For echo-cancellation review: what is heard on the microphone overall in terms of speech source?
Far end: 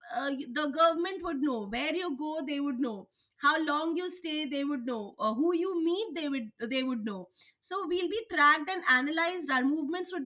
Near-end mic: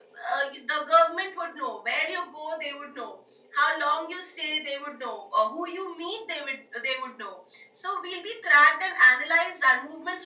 echo only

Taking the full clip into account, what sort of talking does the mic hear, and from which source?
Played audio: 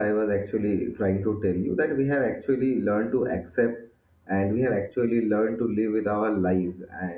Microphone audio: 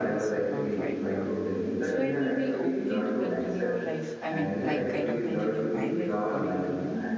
both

